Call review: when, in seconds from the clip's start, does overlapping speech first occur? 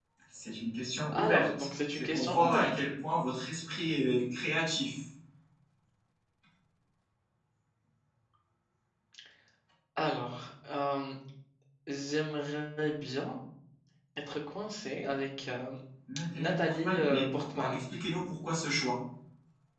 1 s

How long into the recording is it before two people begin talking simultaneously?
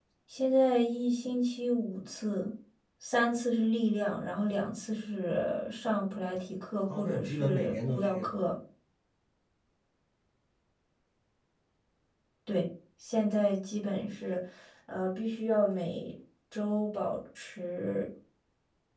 7 s

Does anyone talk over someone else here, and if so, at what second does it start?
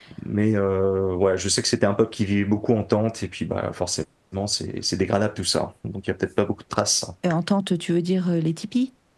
none

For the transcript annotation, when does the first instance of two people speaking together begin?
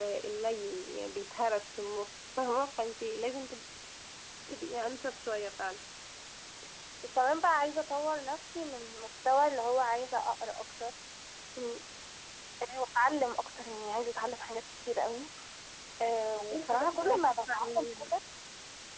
17 s

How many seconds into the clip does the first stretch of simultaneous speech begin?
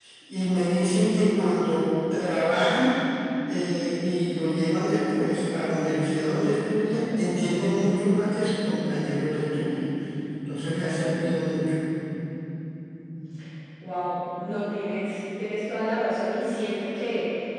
none

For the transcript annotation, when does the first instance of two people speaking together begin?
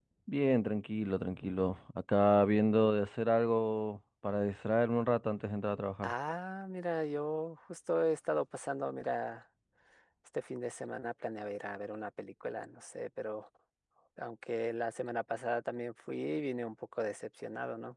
none

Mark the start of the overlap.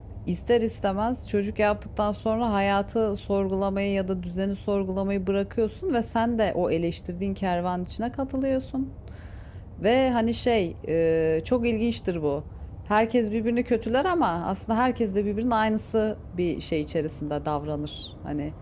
none

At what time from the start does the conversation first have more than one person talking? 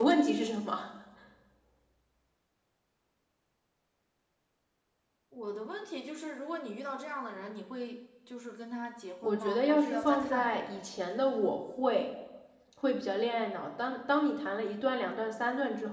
9 s

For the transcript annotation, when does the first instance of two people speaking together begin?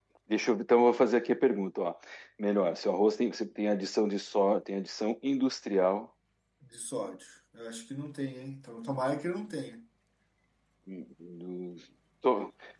none

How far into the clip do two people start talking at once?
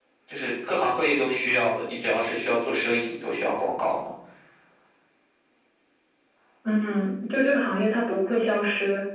none

